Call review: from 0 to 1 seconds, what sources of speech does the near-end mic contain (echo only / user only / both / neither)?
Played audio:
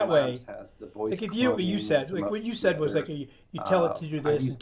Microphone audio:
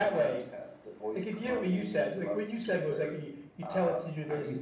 echo only